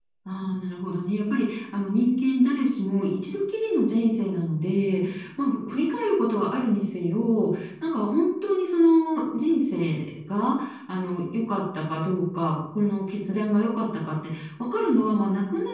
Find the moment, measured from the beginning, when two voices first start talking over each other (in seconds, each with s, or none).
none